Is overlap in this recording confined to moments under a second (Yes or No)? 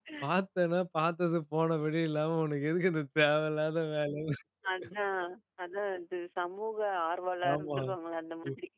Yes